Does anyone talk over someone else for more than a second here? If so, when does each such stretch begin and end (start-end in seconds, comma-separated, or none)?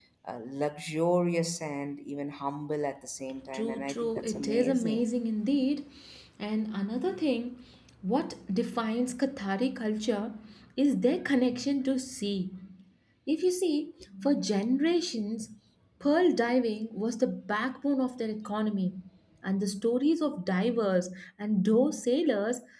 3.5-5.0